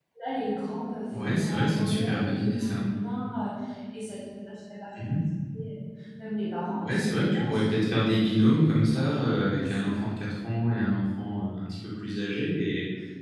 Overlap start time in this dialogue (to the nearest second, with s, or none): 1 s